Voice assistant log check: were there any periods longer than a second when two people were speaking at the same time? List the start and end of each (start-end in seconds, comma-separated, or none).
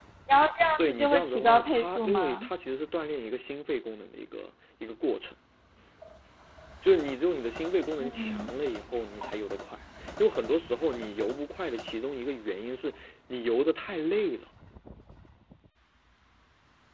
0.8-2.5